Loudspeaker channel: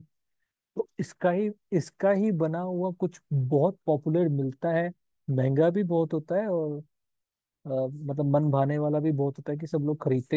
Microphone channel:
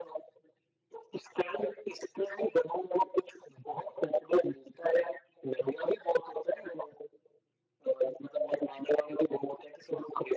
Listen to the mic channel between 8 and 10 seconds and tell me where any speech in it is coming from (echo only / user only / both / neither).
echo only